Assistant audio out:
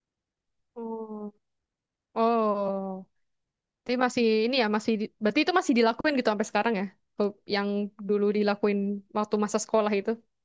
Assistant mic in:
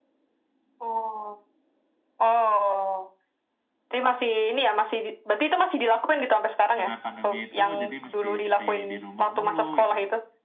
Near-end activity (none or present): present